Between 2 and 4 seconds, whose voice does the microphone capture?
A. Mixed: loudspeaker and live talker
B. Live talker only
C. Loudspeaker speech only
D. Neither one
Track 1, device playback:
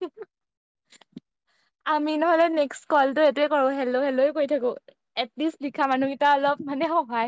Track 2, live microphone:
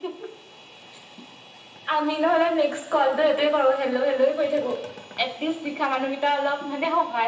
C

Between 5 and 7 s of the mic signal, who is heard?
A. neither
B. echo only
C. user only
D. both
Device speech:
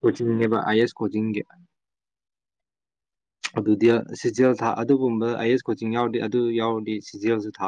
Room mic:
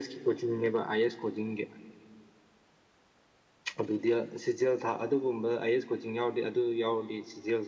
B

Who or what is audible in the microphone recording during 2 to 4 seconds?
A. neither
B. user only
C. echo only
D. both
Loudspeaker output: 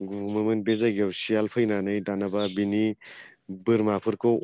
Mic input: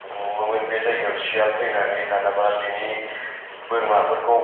C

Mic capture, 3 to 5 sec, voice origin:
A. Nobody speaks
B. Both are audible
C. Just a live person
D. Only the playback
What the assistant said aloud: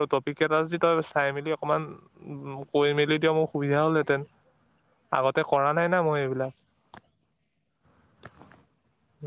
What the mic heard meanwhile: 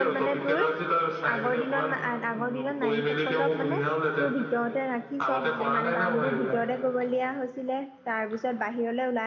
B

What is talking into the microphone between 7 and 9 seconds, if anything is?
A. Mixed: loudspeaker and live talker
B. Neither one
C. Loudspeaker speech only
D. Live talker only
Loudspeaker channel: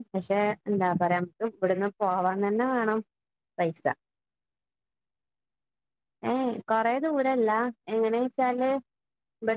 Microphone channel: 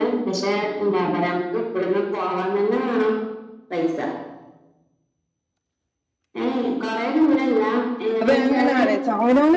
A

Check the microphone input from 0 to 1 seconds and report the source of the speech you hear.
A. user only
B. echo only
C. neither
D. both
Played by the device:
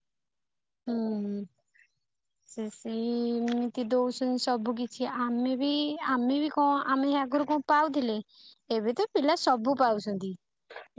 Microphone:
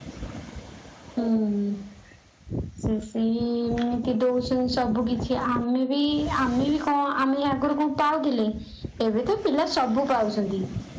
C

